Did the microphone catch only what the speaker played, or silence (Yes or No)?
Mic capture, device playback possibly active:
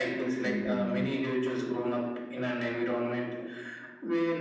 No